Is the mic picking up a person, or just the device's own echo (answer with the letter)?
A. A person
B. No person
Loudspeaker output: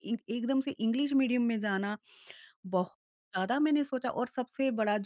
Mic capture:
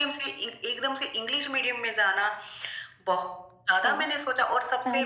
A